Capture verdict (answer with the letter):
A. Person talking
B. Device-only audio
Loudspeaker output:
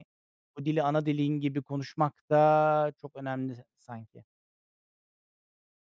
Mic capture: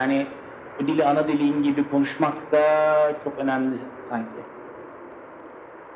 B